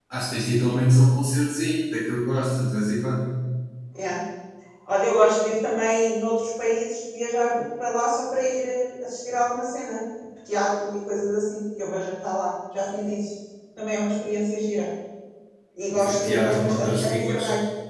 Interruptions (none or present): present